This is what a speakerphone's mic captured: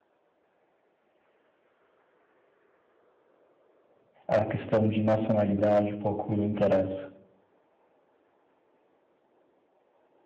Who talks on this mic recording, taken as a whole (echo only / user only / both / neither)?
user only